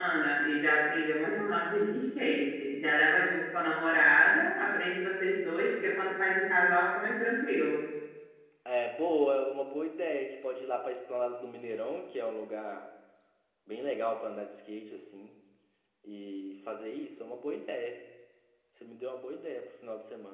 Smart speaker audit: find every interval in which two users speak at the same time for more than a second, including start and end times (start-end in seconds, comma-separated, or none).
none